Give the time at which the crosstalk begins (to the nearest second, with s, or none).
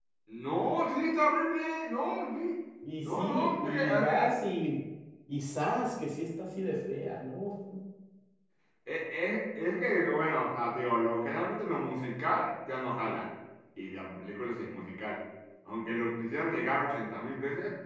3 s